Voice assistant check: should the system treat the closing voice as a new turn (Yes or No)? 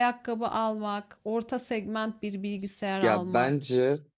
Yes